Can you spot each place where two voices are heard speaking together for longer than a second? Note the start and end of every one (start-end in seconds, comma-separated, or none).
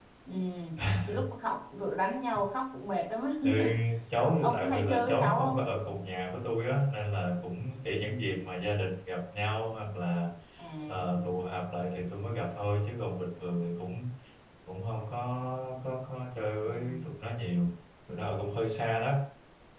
4.4-5.7